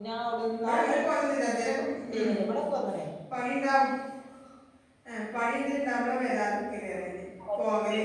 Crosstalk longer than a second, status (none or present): none